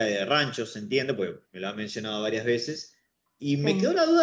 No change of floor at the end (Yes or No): Yes